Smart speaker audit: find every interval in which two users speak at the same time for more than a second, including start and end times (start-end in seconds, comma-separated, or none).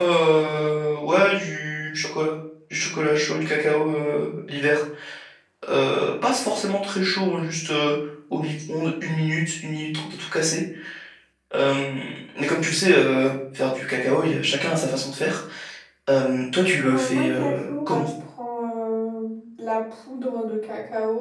16.8-18.1